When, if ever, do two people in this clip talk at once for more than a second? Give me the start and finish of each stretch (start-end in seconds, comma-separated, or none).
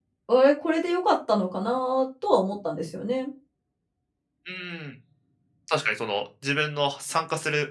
none